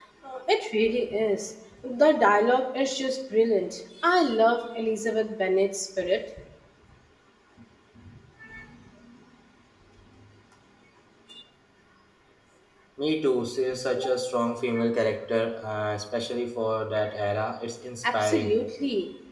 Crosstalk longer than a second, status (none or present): none